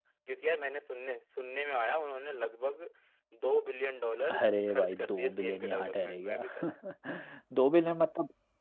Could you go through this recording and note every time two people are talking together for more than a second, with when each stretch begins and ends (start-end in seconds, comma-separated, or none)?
4.3-6.4